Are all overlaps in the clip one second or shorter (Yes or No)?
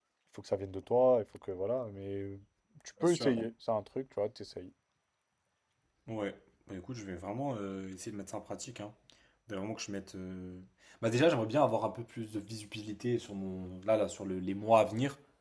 Yes